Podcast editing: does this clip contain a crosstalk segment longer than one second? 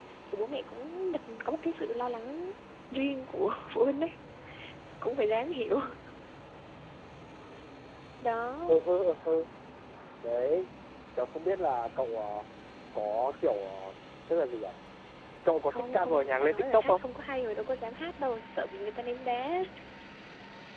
Yes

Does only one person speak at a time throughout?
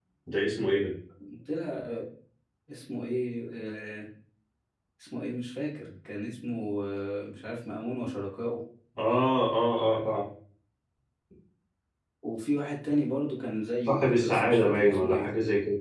No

